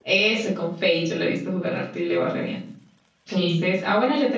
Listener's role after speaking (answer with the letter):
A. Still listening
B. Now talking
A